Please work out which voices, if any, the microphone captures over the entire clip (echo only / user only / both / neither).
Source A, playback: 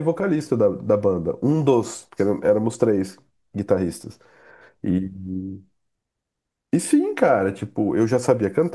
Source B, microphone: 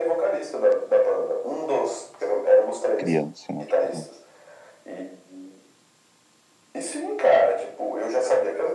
both